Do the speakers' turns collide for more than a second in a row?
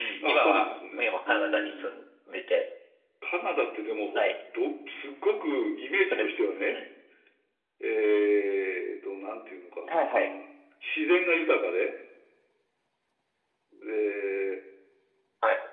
Yes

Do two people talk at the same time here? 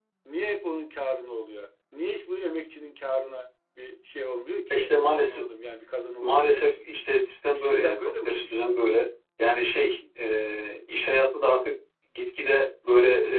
Yes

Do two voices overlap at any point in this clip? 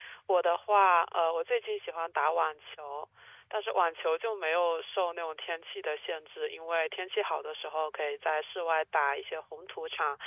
No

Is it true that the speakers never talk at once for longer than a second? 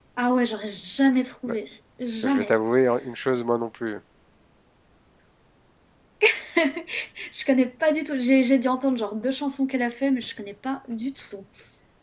Yes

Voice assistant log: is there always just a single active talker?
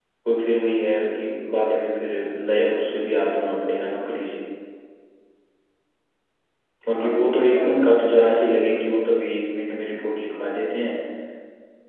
No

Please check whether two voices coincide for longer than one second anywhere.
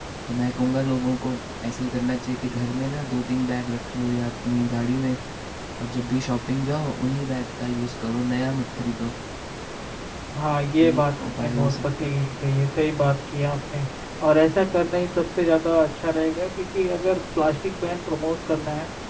Yes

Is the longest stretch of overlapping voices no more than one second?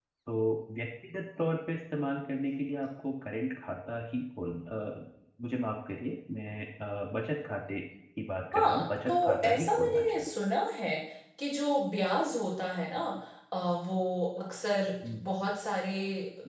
No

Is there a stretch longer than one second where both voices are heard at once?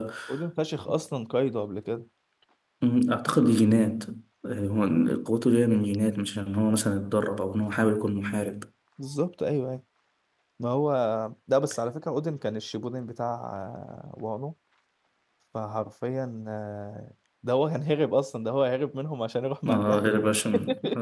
No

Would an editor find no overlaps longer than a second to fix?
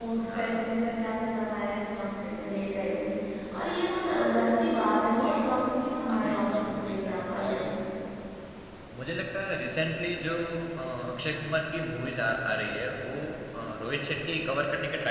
No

